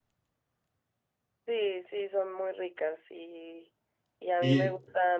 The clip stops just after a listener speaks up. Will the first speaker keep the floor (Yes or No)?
Yes